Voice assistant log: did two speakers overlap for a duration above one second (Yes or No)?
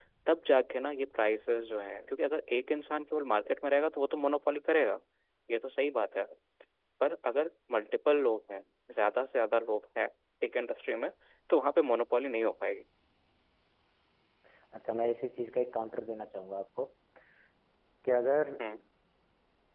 No